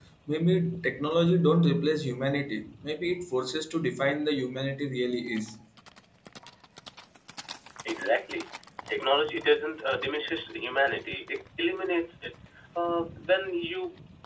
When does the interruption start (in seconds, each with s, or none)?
none